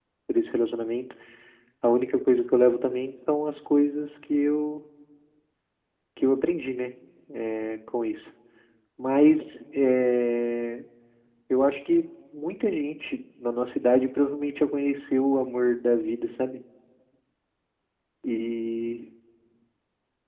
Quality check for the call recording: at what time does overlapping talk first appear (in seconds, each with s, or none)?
none